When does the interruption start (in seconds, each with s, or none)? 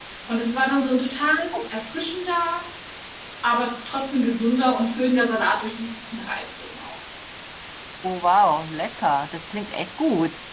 none